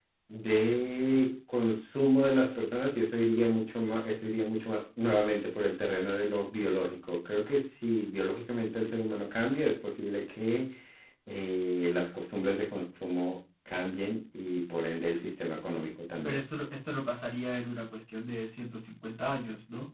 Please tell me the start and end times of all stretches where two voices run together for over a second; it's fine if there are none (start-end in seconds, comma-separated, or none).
none